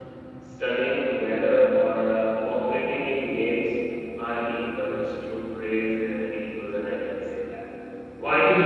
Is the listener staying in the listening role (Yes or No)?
Yes